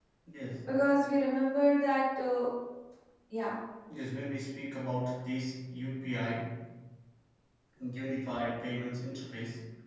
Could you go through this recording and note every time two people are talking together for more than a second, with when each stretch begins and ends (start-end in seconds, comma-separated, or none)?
none